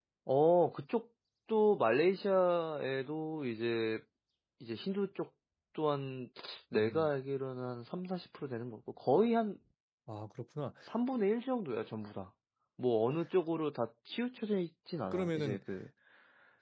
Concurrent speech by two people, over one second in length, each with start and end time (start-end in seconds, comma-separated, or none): none